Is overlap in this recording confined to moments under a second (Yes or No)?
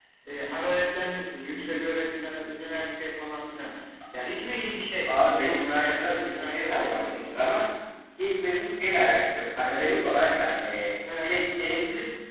No